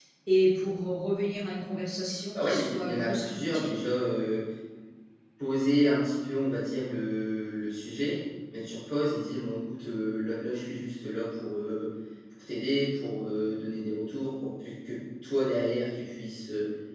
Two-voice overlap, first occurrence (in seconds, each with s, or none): 2.3 s